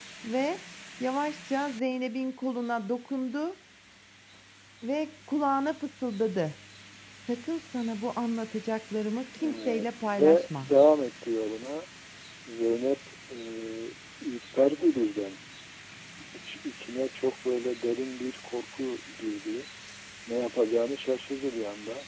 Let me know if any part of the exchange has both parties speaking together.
Yes, from 9.3 s

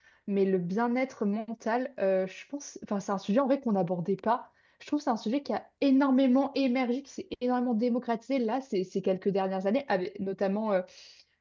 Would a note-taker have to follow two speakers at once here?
No

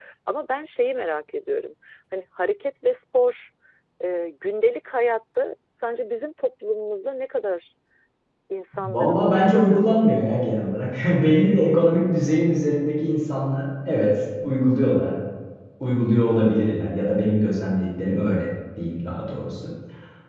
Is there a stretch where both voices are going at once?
Yes, from 8.8 s

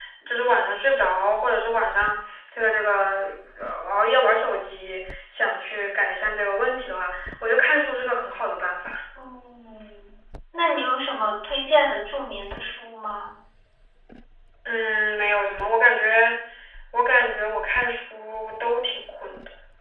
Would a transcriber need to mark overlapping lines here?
No

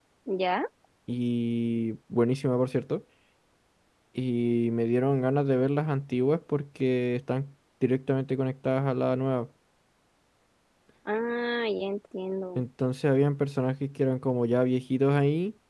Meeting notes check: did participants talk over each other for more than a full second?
No

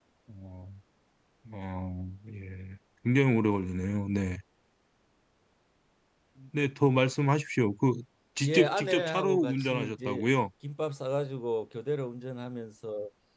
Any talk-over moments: Yes, from 8.4 s

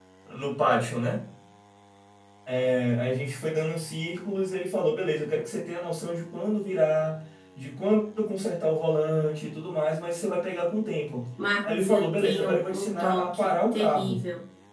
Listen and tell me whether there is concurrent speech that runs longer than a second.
Yes, from 11.6 s

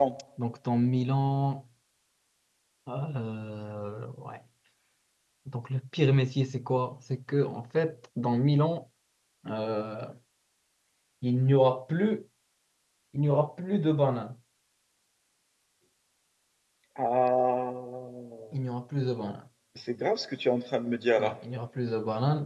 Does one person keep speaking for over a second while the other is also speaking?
No

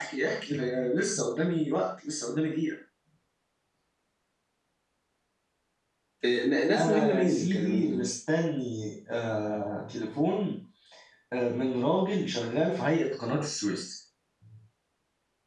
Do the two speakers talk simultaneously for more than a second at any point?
Yes, from 6.8 s

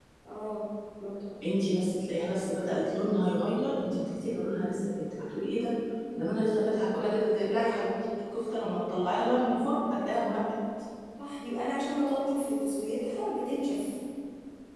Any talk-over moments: No

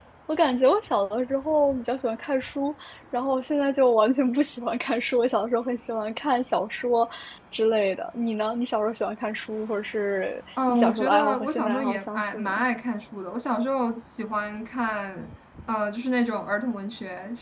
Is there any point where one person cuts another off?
Yes, from 10.6 s

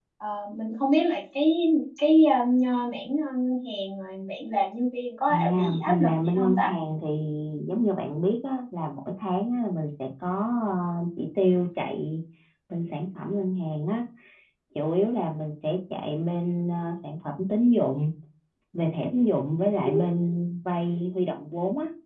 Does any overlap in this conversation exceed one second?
Yes, from 5.3 s

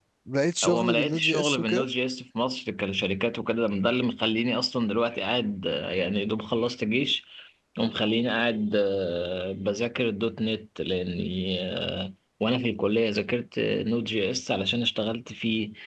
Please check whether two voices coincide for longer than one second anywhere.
Yes, from 0.6 s

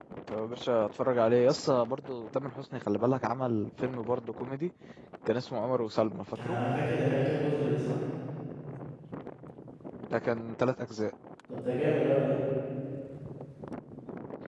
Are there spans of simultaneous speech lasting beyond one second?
No

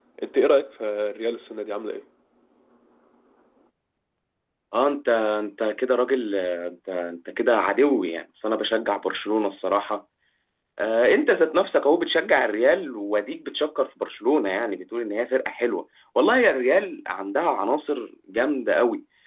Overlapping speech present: No

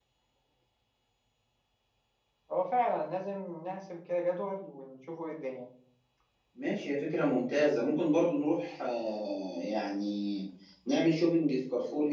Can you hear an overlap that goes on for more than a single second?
No

